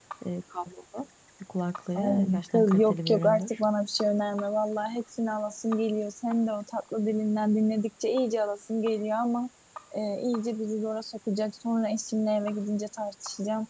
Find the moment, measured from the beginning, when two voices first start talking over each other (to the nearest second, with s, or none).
2 s